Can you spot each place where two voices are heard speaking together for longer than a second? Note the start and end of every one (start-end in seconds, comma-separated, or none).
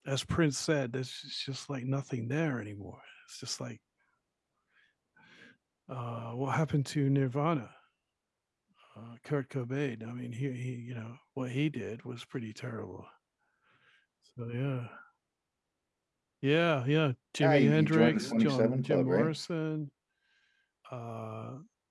17.4-19.3